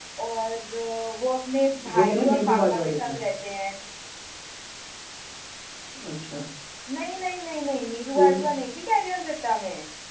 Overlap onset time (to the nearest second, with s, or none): 2 s